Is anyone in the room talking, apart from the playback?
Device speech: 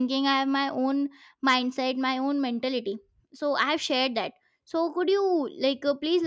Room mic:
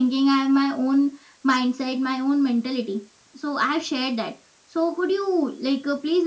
No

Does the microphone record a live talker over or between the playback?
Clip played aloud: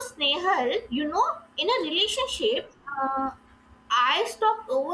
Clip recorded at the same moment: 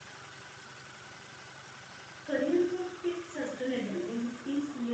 Yes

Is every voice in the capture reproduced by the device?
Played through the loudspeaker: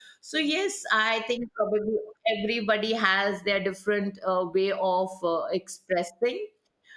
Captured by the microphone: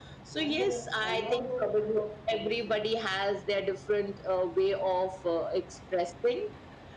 No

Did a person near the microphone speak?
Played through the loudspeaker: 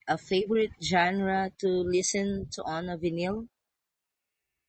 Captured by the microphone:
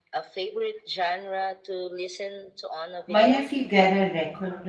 Yes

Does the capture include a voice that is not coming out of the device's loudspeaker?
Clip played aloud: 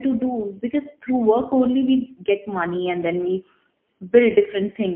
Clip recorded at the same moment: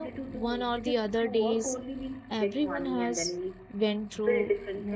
Yes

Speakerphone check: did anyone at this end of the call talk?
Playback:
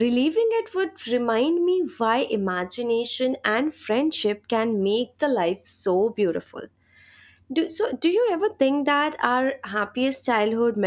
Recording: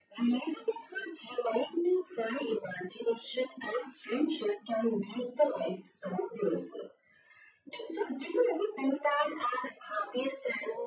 No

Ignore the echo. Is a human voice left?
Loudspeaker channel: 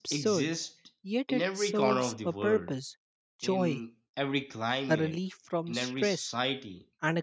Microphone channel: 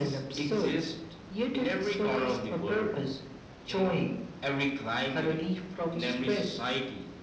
No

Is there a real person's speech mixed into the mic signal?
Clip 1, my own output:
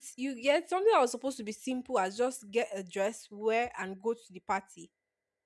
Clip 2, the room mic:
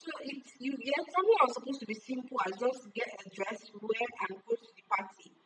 No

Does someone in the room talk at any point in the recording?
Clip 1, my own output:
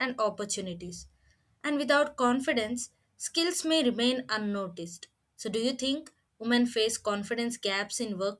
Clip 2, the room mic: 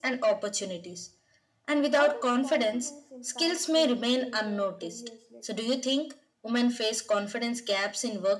Yes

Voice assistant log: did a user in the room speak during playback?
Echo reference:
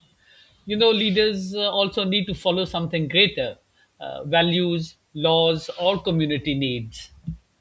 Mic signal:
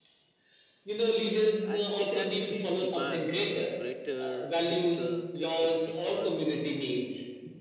Yes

